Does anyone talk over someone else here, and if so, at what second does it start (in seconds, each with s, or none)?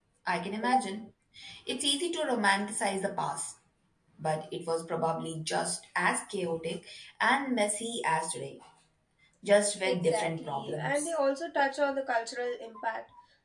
9.8 s